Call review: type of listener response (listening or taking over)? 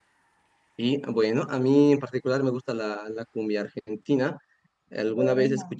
listening